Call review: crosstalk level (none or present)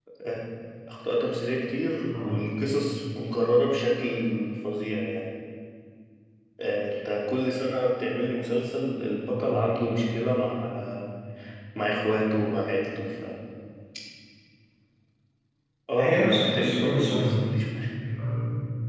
present